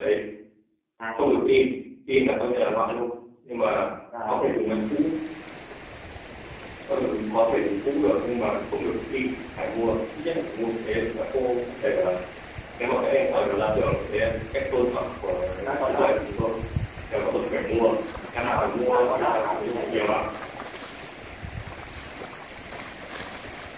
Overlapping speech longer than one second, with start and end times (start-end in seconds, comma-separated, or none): 18.4-20.2